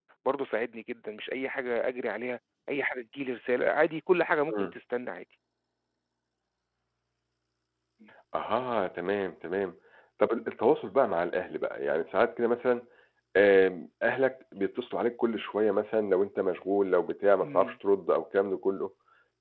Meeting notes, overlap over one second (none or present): none